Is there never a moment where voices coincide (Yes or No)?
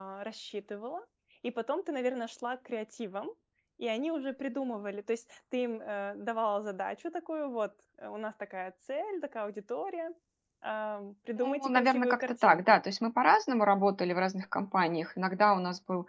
No